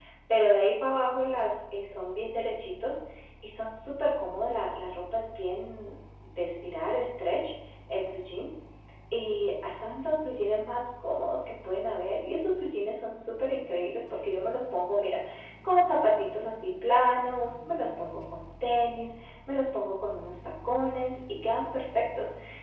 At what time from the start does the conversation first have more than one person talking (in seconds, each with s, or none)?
none